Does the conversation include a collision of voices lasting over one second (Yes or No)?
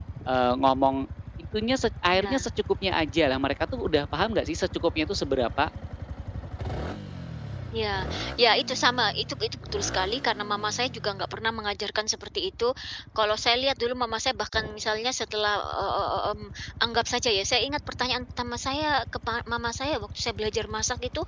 No